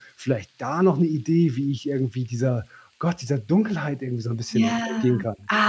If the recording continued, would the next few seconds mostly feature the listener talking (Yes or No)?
Yes